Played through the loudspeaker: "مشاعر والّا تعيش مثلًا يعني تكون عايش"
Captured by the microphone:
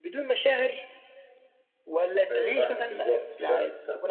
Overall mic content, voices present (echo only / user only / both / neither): both